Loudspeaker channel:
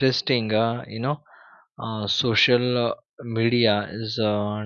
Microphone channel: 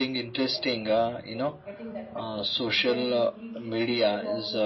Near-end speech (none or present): present